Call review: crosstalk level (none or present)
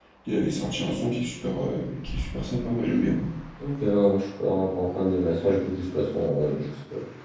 none